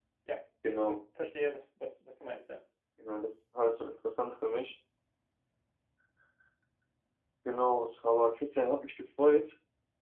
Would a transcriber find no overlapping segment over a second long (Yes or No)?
Yes